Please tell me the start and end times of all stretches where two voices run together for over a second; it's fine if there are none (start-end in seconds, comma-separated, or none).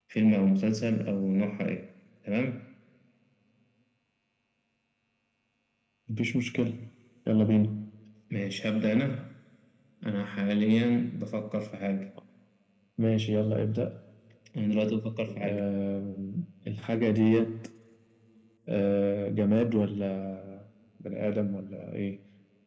none